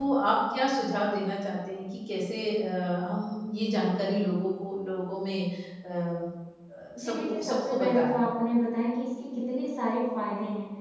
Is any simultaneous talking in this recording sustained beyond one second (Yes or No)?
Yes